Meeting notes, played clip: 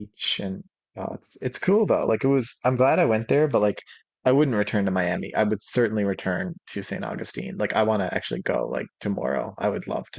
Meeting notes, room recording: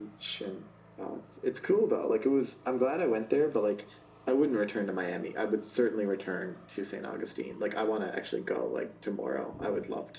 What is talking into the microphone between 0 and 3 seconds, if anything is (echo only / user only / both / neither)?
echo only